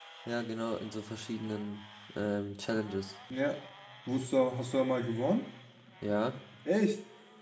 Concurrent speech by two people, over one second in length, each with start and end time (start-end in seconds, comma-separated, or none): none